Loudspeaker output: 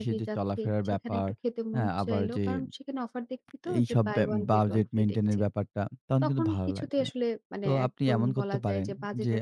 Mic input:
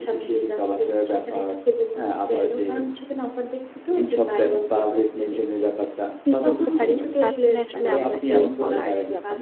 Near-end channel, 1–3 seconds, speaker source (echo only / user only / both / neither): echo only